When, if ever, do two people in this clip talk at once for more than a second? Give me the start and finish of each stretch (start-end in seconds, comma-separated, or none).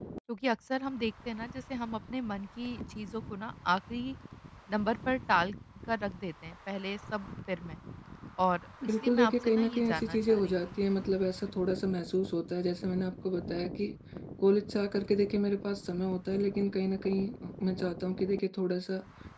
8.8-10.8